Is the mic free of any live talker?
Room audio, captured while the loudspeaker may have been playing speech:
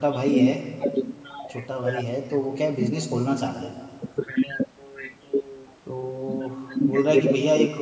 No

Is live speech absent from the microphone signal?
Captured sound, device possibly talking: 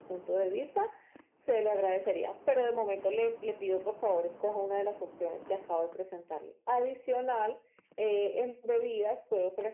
Yes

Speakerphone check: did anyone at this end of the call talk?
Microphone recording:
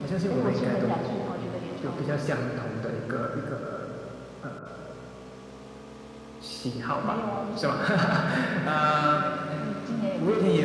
No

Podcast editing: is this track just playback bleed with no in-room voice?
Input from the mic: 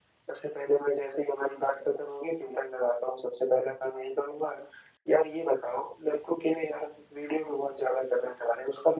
Yes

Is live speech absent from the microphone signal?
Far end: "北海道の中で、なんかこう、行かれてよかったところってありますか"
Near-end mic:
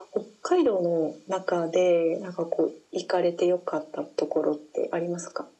Yes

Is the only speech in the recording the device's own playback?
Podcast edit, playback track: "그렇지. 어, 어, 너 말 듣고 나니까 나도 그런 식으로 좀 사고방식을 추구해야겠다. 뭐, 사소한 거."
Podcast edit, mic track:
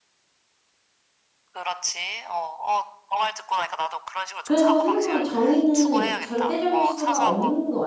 No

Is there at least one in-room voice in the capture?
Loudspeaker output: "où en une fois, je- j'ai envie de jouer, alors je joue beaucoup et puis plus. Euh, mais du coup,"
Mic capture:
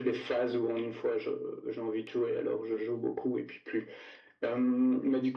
No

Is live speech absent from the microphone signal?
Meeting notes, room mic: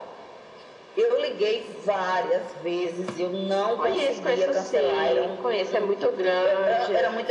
Yes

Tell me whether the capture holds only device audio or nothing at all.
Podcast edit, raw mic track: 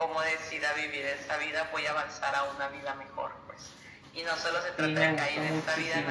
No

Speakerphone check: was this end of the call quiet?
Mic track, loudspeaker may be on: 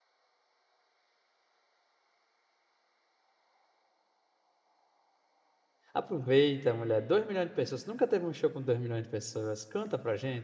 No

